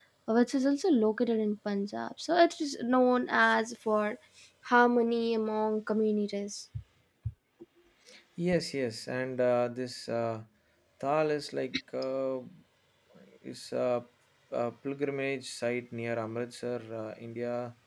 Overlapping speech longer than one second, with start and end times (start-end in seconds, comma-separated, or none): none